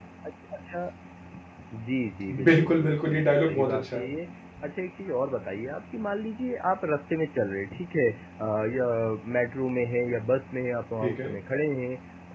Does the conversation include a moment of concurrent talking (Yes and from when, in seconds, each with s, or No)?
Yes, from 2.5 s